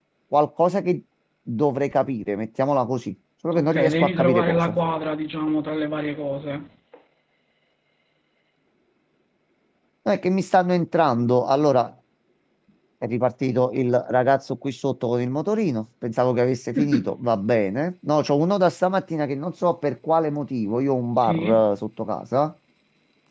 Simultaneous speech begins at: 4 s

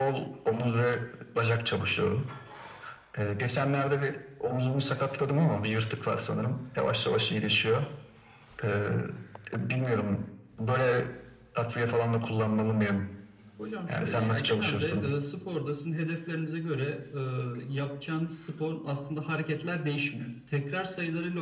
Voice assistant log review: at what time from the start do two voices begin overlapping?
14 s

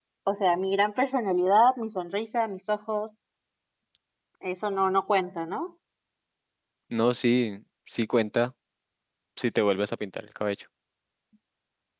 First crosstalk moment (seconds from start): none

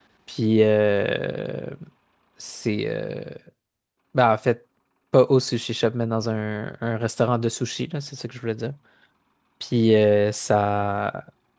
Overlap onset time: none

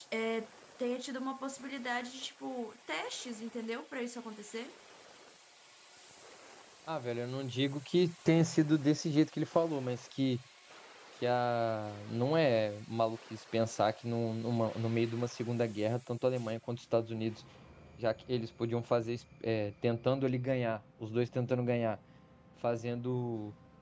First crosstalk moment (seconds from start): none

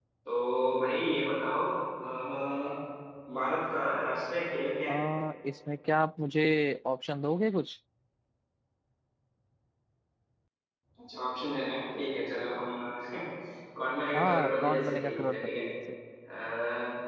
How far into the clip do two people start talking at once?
14 s

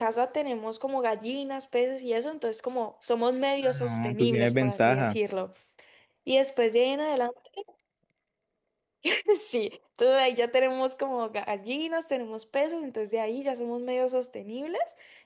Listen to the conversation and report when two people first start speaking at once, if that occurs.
4 s

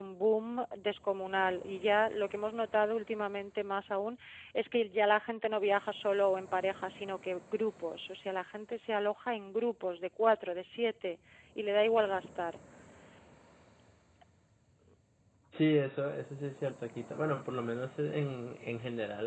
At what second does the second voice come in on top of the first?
none

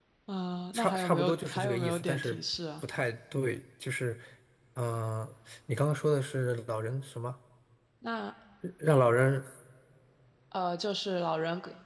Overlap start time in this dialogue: 1 s

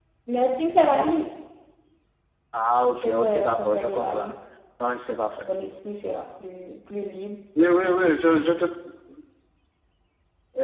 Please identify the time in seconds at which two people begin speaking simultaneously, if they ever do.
3 s

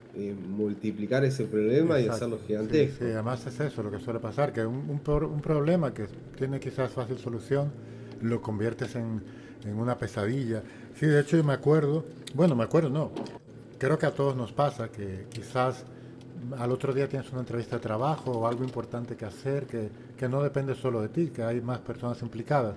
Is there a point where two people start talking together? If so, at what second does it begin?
2 s

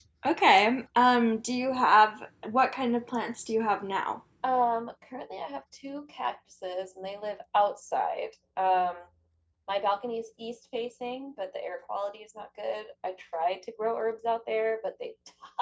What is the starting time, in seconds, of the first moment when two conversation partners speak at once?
none

